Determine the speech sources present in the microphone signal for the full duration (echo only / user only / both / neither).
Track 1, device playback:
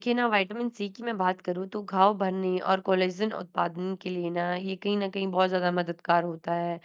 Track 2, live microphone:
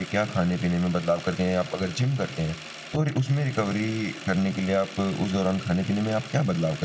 user only